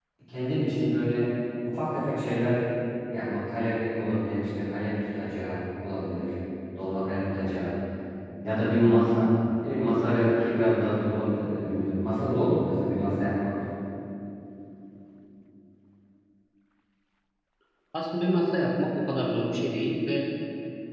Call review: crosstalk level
none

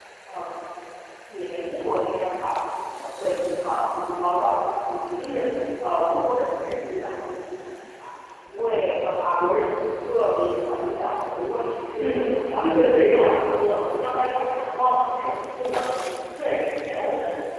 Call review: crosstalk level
present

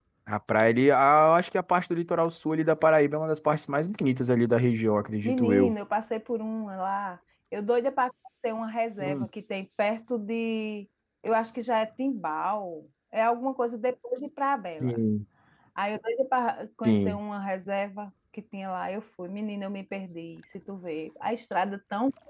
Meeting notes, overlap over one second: none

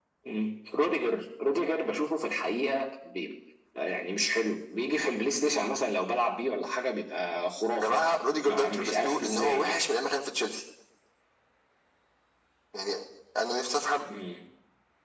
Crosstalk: present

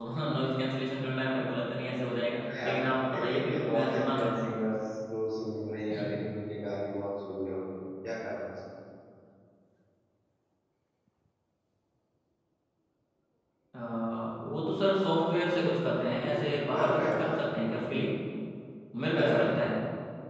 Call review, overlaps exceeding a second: present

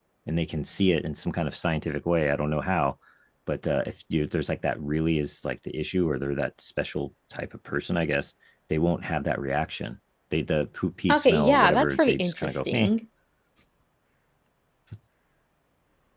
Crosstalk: present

